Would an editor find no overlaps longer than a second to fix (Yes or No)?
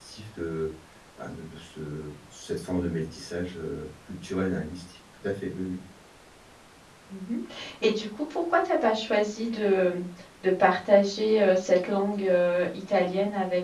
Yes